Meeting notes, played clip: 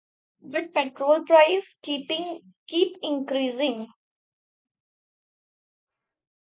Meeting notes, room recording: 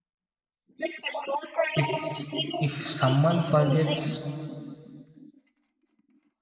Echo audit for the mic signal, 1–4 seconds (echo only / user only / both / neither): both